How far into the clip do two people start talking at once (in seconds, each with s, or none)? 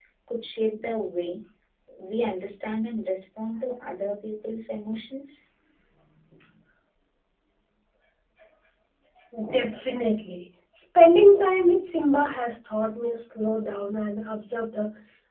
none